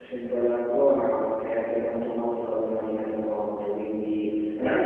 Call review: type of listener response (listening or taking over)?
listening